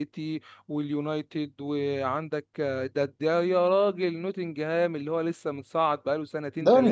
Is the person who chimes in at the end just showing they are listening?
No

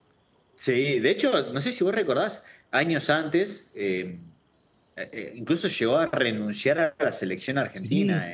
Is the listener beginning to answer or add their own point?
No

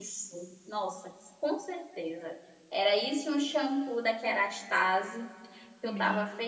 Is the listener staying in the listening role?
No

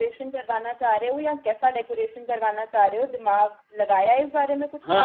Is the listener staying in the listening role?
No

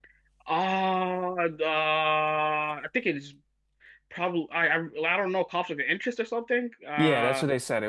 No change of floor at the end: No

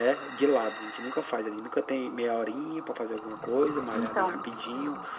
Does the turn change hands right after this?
No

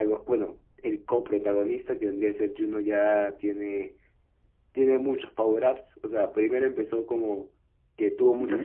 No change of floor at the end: Yes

